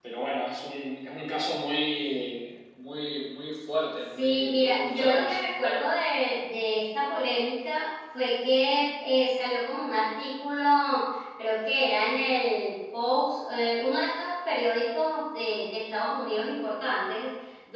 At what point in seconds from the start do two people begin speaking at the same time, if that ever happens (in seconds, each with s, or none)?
4.2 s